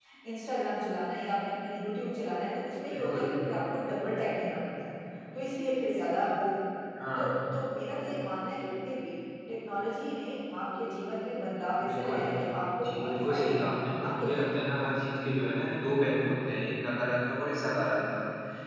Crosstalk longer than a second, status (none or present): present